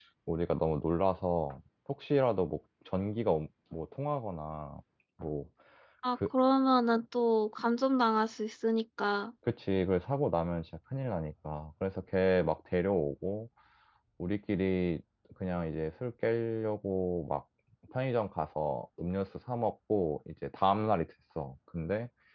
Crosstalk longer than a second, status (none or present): none